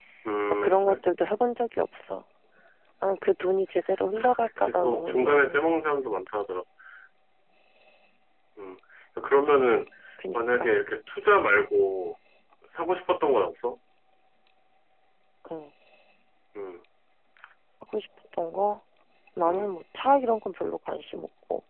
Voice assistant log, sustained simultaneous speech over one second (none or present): present